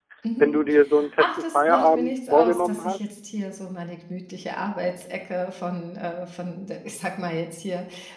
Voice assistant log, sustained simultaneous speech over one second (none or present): present